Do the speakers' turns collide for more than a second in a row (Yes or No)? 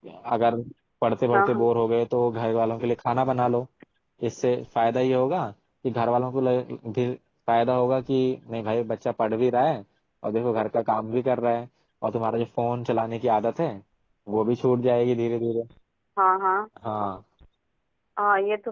No